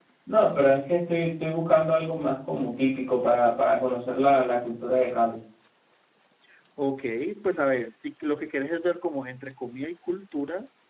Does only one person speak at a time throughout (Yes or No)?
Yes